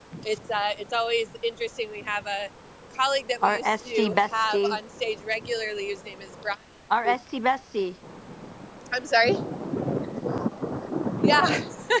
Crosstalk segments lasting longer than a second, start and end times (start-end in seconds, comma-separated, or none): 3.4-4.8